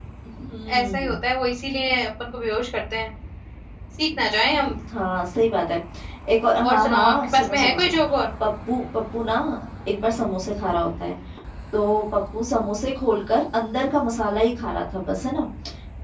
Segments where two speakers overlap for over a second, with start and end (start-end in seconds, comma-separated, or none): 6.7-8.0